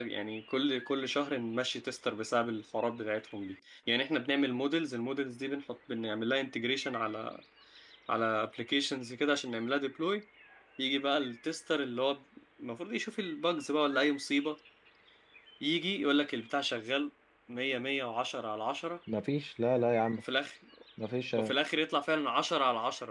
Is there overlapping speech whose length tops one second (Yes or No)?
No